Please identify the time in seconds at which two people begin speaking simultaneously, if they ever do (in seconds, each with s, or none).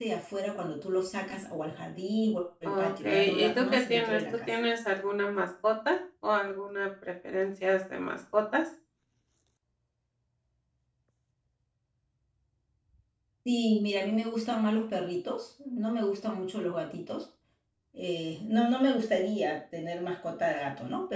2.6 s